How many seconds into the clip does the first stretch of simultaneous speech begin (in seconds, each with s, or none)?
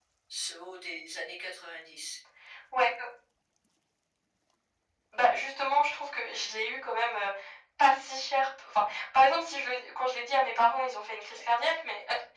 none